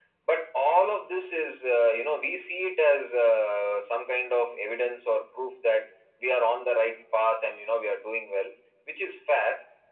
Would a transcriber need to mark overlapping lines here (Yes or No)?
No